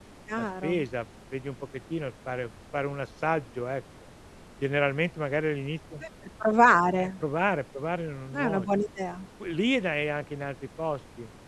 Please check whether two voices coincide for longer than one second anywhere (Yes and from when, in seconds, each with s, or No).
No